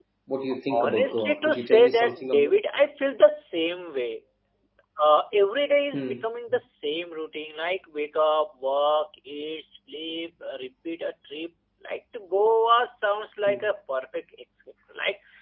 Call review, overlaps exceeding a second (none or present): present